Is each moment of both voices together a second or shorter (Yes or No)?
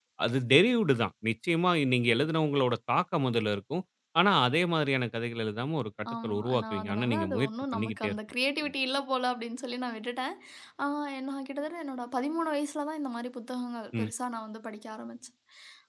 No